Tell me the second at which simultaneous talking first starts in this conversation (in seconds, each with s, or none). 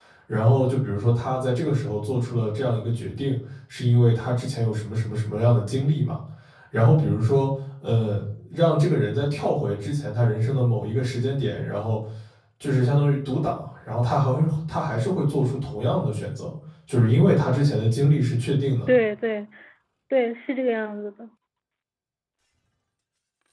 none